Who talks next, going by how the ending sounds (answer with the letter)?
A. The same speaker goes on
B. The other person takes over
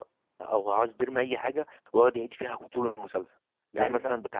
A